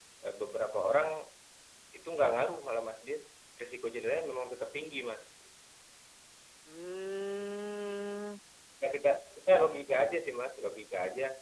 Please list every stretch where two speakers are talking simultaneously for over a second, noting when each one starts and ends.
none

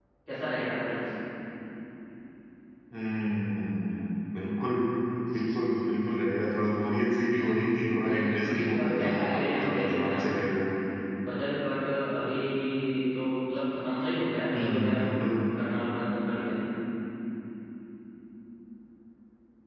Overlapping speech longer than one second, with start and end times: 8.0-10.1

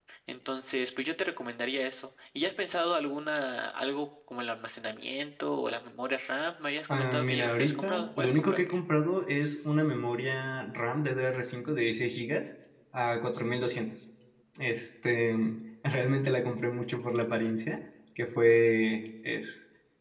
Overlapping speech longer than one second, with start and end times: 6.9-8.8

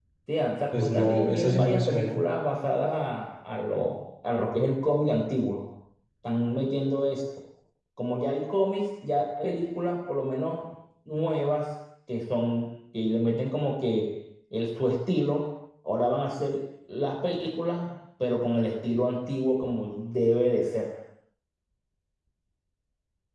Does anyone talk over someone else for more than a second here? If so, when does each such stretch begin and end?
0.7-2.2

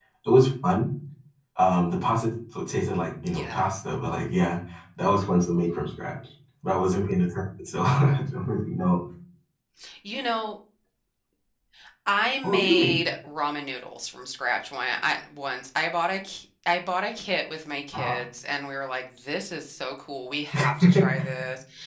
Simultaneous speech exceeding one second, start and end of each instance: none

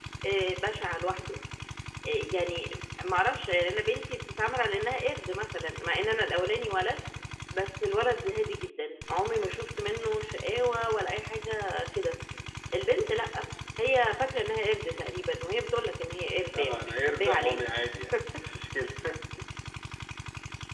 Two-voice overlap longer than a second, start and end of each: 16.5-17.7

